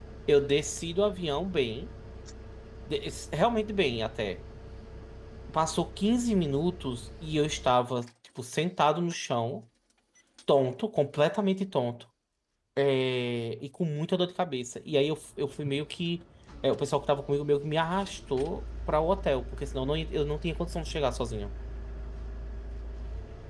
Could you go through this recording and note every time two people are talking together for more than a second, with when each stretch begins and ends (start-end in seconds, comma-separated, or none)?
none